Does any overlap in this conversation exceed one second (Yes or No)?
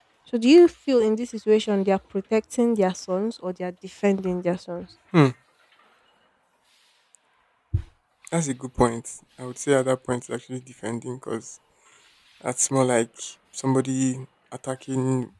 No